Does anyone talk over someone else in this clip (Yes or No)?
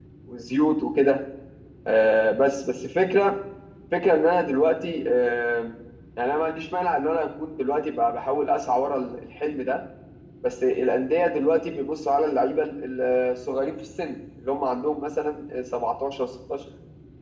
No